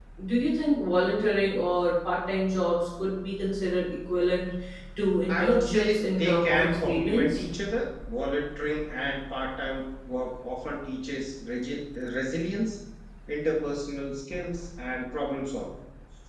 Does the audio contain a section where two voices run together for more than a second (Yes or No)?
Yes